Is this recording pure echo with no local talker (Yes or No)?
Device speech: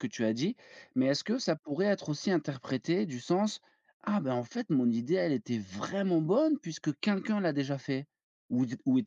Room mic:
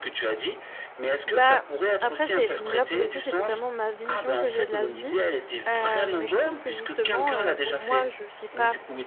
No